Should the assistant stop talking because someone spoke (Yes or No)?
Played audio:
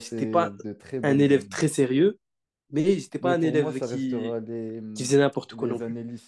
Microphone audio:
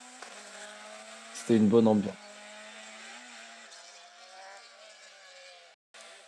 Yes